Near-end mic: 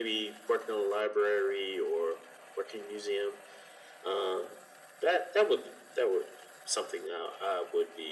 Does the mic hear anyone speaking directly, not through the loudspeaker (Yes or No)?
No